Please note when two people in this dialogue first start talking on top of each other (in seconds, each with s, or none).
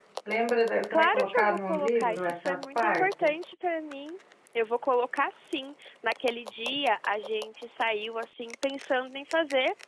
0.9 s